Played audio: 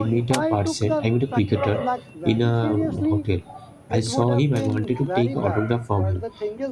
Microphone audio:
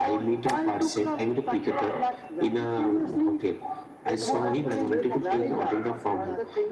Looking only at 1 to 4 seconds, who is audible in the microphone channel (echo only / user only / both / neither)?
echo only